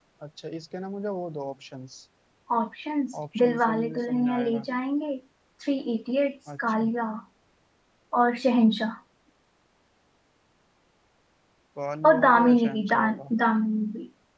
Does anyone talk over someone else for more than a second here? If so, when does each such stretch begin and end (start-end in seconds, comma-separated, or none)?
3.4-4.7, 12.0-13.3